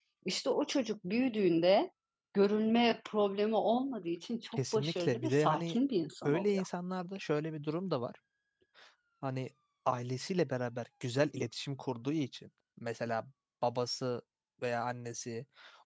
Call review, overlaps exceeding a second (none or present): present